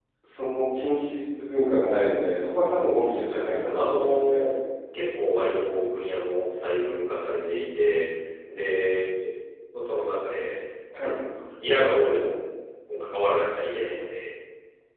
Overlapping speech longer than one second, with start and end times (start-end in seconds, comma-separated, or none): 3.0-4.4